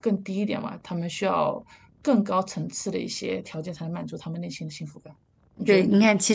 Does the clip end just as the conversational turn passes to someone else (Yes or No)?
Yes